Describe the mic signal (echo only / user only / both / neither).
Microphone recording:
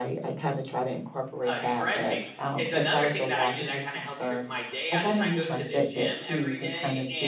both